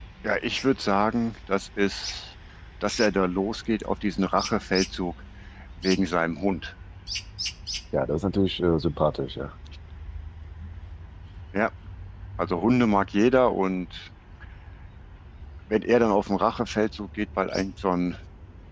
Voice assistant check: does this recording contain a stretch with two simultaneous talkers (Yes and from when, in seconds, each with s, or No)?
No